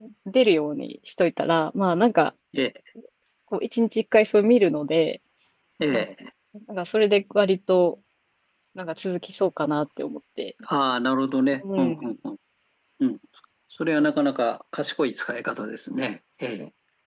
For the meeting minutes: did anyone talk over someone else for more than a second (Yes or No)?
No